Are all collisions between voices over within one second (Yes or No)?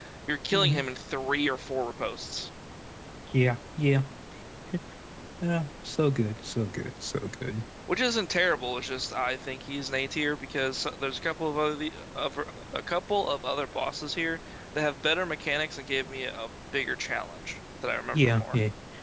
Yes